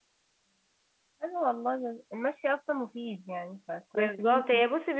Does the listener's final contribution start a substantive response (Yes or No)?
Yes